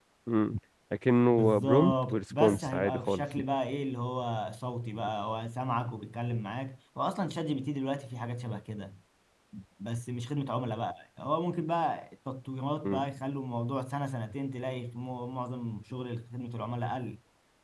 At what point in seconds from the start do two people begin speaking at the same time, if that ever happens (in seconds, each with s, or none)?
1.3 s